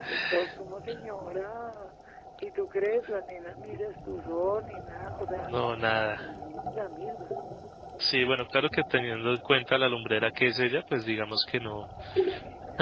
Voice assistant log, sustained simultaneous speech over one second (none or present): none